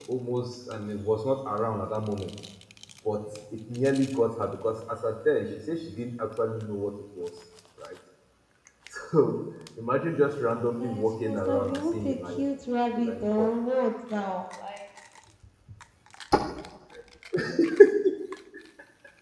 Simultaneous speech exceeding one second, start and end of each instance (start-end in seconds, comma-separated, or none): 10.7-12.4